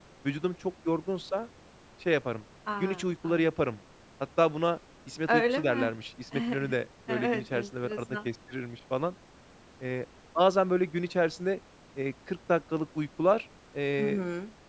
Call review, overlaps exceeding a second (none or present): present